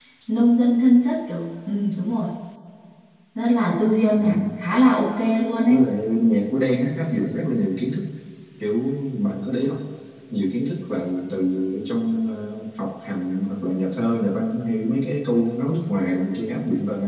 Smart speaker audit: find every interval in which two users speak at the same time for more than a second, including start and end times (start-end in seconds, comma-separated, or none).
none